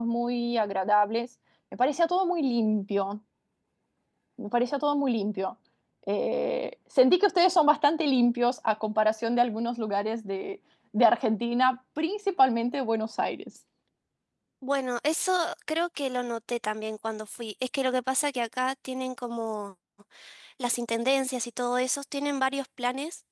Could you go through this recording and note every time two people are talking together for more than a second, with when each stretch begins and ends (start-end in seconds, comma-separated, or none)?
none